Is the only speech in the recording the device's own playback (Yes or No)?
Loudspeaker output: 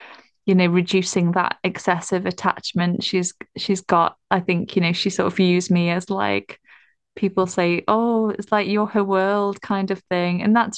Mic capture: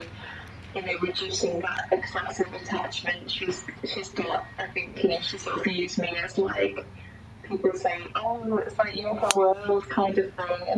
Yes